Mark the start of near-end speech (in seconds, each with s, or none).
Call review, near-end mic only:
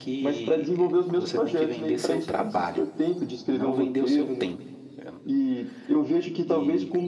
none